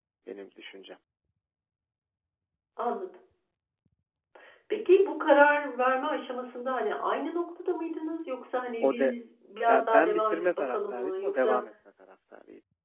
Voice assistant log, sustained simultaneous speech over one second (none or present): present